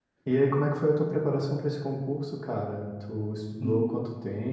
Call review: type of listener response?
listening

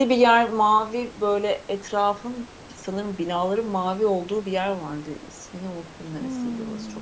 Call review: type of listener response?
taking over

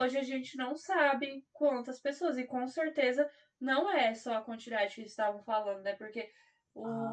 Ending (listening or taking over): listening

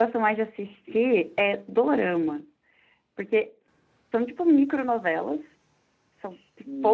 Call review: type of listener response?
listening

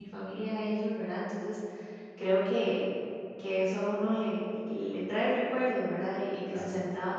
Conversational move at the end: listening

